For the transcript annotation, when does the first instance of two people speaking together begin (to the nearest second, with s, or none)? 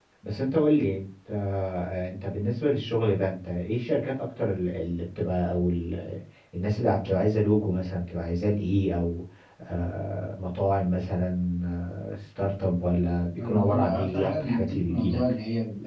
13 s